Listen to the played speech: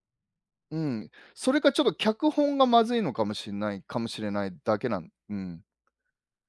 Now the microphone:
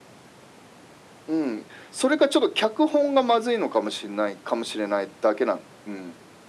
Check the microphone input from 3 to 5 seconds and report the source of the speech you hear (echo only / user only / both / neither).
echo only